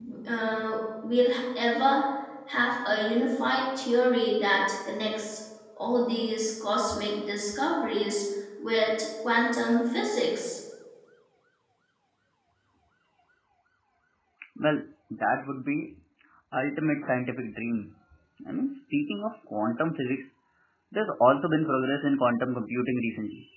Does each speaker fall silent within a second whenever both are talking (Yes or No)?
Yes